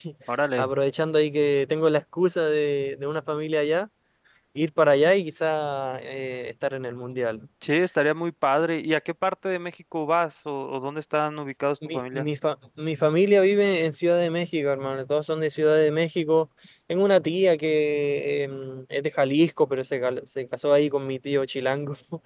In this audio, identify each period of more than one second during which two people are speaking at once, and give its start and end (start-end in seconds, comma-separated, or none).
none